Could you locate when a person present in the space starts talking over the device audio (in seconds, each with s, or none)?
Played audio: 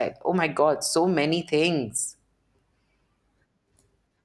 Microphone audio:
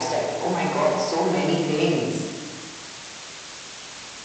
none